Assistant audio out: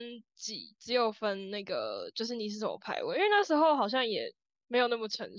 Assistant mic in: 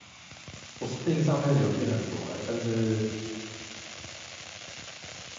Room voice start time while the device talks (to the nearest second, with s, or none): 1 s